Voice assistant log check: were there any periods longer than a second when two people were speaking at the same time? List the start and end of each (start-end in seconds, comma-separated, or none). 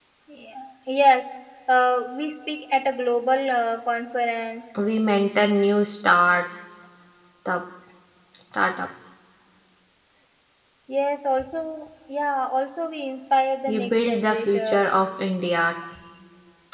13.7-14.9